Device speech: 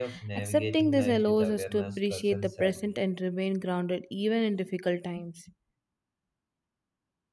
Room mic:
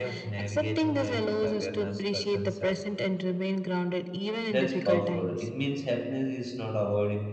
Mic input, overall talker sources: both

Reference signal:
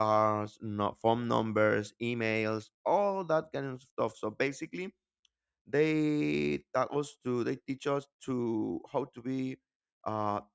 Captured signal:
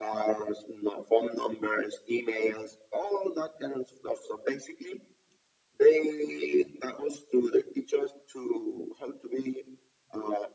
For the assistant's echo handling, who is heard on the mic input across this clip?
echo only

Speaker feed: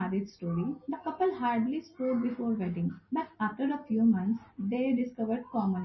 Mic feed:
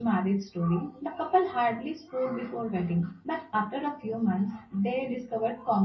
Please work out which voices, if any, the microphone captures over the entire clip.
echo only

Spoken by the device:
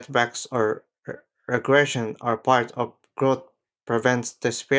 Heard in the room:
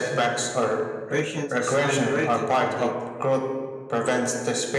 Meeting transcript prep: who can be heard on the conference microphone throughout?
both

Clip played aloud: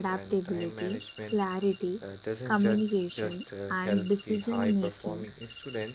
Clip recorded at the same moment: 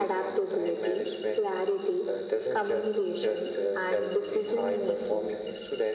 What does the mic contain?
echo only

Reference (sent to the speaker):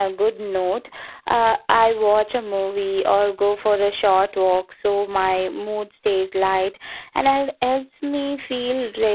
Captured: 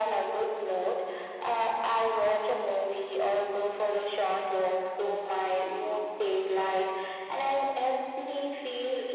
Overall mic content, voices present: echo only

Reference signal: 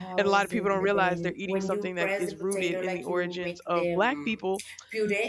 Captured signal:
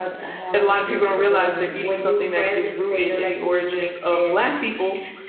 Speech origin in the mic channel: echo only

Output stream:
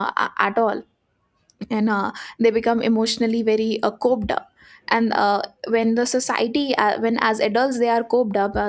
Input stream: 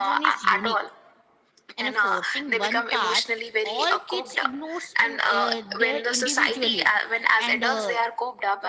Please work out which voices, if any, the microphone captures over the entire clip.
both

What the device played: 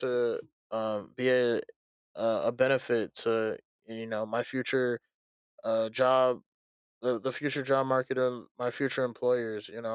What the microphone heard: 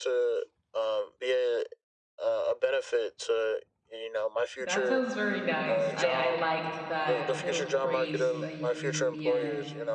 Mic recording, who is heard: both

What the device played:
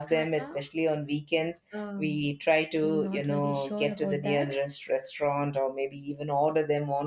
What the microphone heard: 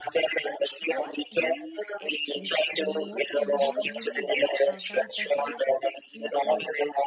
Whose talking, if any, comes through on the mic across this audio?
both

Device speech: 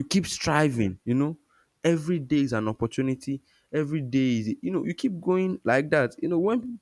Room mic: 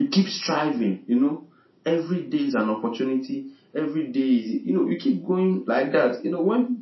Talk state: echo only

